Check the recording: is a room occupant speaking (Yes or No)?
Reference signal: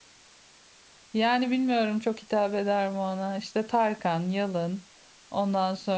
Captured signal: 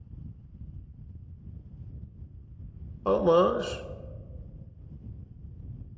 Yes